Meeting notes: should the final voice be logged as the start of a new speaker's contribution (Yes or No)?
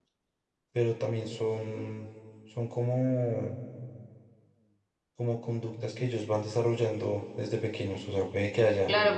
Yes